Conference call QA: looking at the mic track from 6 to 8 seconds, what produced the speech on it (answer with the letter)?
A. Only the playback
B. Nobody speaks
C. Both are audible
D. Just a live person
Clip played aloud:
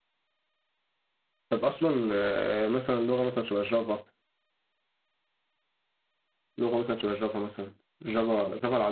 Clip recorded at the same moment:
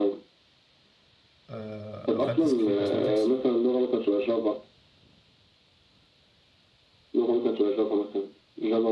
A